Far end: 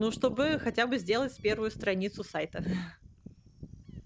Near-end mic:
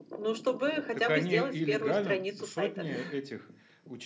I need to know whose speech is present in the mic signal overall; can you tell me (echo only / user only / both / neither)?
both